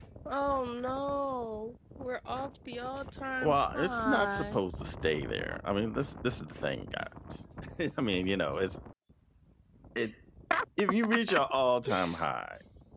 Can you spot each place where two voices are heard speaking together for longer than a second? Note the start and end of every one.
3.4-4.6

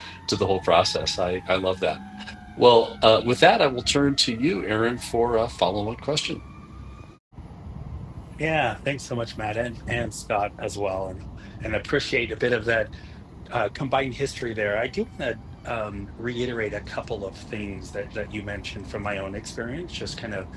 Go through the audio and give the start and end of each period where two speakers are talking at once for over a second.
none

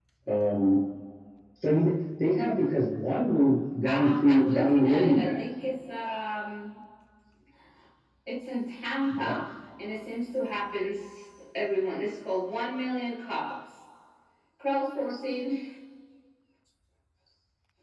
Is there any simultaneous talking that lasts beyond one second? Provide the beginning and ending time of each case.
3.8-5.5

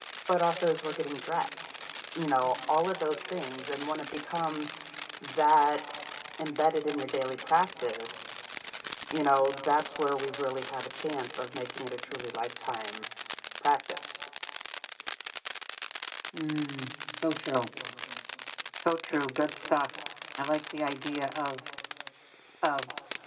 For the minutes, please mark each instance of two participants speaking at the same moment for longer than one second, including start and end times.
none

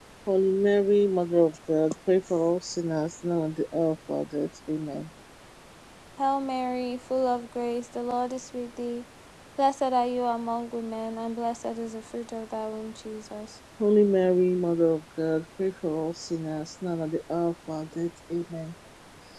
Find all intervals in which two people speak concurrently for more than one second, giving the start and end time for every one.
none

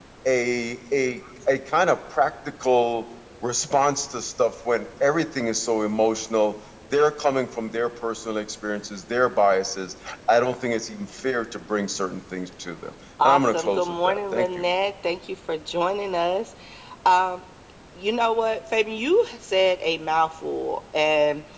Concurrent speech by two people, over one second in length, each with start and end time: 13.2-14.5

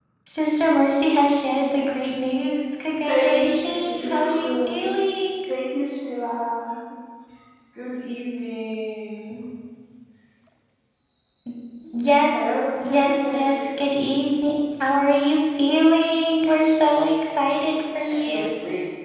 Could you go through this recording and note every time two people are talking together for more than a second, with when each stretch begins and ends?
3.1-4.8, 12.3-13.6

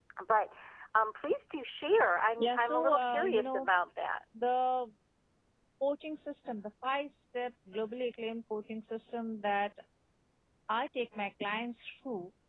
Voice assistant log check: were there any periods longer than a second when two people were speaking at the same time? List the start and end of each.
2.4-3.7

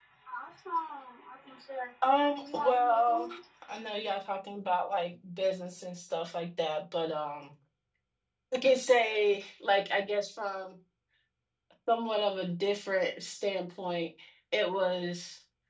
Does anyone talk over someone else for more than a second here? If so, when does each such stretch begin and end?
2.1-3.3

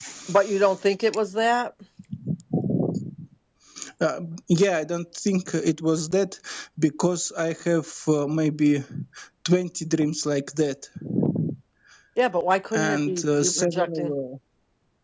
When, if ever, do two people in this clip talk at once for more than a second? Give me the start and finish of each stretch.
12.8-14.1

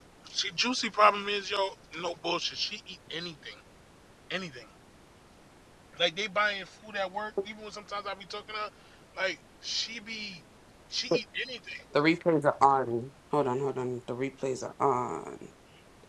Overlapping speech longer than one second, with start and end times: none

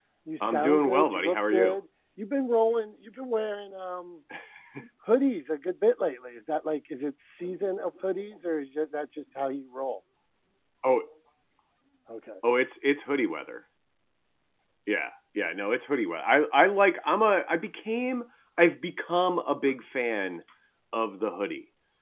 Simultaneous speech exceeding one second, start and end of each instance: 0.5-1.8

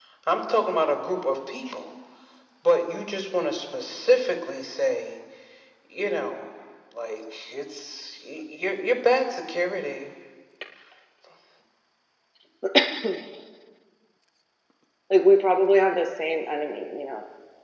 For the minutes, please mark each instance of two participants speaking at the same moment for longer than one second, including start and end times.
none

